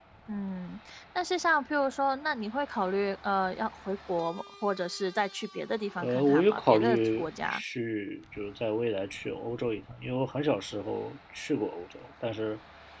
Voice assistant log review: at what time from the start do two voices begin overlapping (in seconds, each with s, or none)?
6.0 s